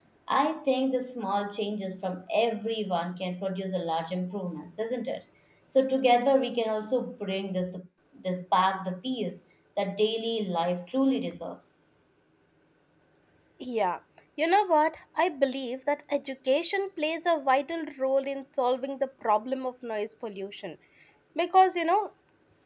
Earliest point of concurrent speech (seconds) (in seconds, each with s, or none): none